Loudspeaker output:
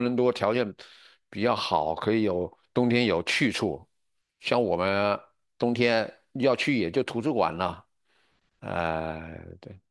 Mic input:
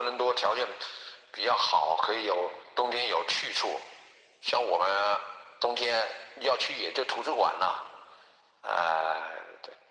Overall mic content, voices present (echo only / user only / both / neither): echo only